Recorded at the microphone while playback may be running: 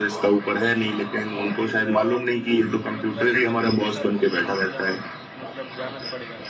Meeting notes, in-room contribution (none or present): present